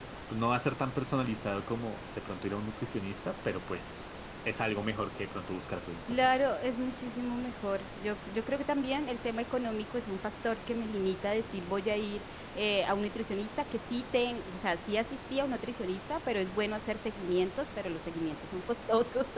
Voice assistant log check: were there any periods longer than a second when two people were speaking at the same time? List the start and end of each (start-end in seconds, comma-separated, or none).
none